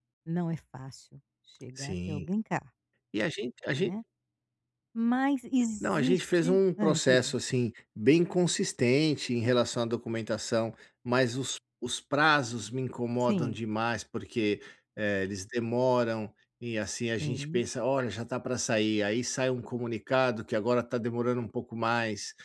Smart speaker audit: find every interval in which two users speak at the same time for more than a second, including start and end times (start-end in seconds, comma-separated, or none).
5.8-7.3